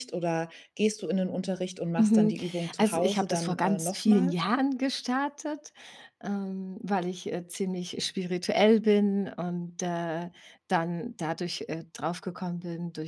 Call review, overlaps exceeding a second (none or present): present